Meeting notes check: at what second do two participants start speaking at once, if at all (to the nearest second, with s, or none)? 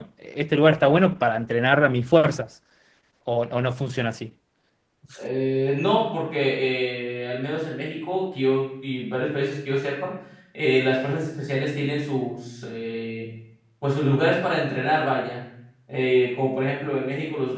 none